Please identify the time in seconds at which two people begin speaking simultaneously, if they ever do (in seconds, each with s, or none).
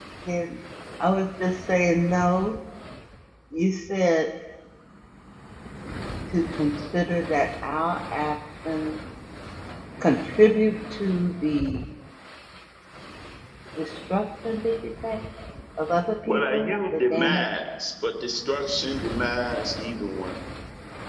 16.2 s